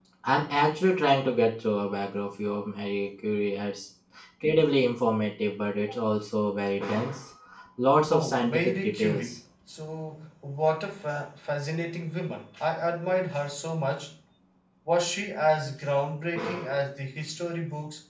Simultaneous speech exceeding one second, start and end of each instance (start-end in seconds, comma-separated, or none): 8.1-9.4